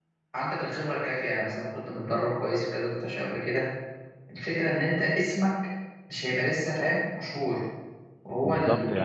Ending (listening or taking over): taking over